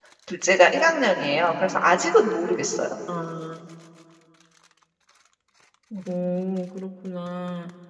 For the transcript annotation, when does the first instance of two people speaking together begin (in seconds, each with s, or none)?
none